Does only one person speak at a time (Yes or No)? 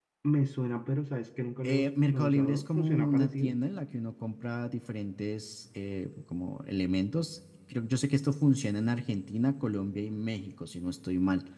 No